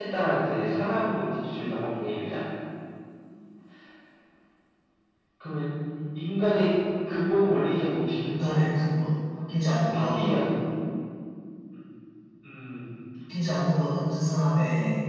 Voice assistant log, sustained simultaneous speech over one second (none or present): none